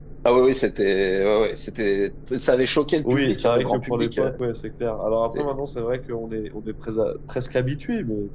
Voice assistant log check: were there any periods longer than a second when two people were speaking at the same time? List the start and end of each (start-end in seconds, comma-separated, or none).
3.1-4.3